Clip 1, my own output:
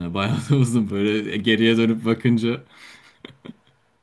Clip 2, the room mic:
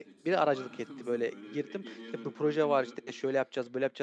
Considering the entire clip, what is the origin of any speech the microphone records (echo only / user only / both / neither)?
both